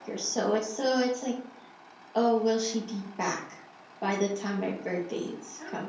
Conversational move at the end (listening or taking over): taking over